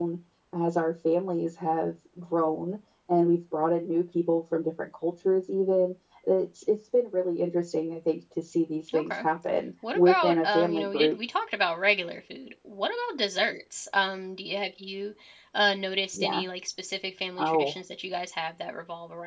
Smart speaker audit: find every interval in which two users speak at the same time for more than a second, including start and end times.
9.9-11.2

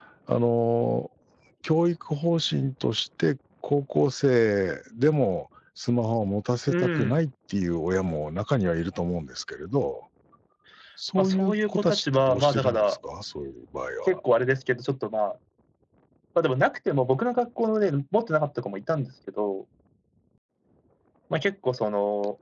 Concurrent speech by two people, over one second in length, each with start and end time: 11.2-13.0

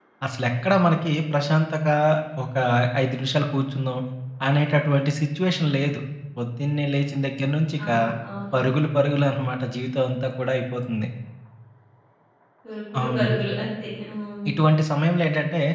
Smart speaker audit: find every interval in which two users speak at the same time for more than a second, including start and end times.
none

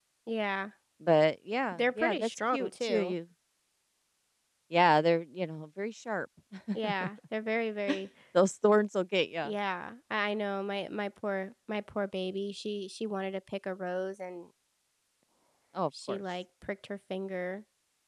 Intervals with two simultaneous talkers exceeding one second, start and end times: 1.8-3.1

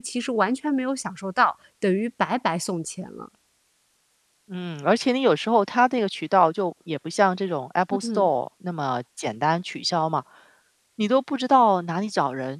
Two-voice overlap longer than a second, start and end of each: none

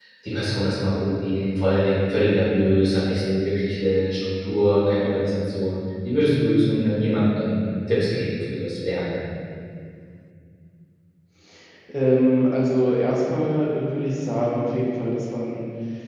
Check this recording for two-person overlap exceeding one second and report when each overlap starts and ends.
none

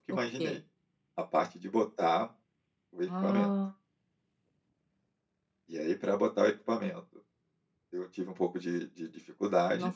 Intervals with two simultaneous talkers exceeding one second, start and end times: none

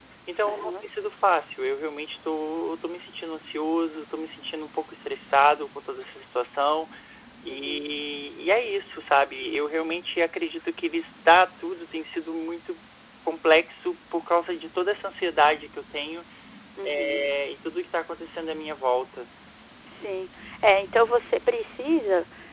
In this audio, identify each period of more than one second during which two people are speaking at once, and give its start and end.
none

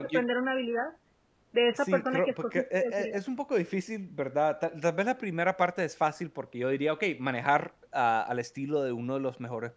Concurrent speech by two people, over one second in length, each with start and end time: 1.7-3.1

